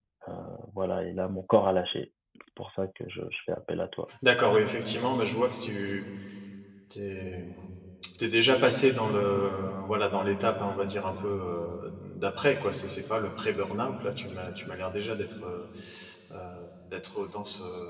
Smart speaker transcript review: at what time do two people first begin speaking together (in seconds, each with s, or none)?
none